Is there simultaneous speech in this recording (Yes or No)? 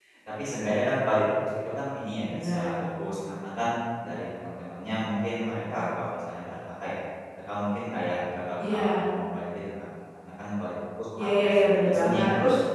Yes